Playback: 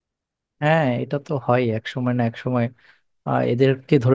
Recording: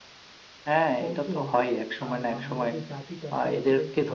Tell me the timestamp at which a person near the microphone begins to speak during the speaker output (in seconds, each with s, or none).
1.0 s